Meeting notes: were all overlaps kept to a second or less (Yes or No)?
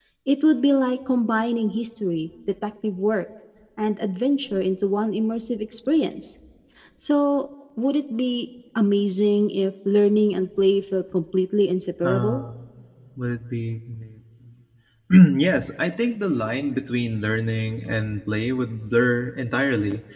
Yes